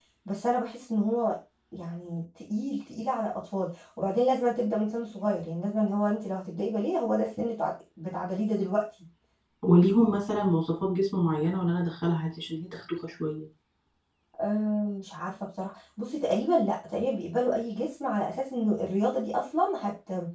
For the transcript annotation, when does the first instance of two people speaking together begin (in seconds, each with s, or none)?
none